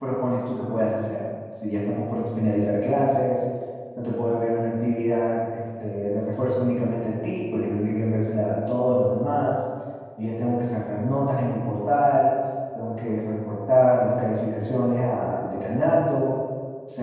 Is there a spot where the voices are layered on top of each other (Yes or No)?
No